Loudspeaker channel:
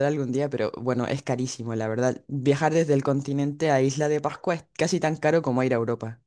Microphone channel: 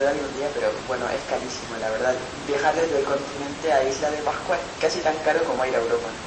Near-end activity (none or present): none